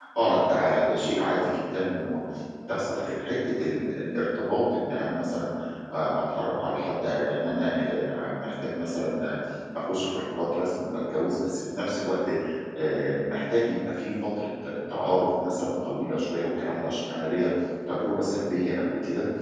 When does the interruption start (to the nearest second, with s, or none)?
none